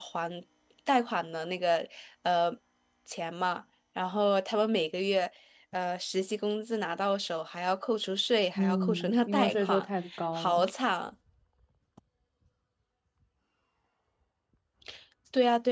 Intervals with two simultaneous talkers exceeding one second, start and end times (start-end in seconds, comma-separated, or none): 8.6-9.8